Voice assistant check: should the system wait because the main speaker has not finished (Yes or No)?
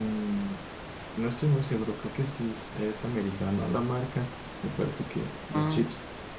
Yes